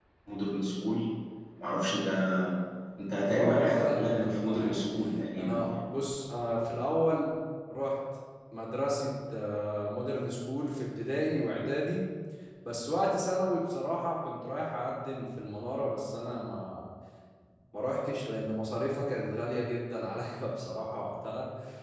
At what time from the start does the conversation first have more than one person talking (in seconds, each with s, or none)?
3.3 s